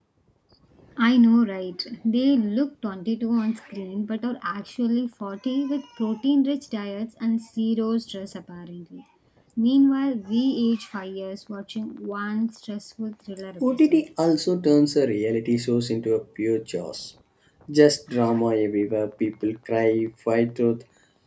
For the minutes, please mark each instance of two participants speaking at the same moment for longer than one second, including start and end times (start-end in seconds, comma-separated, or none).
none